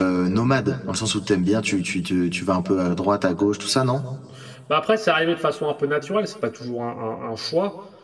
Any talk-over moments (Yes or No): No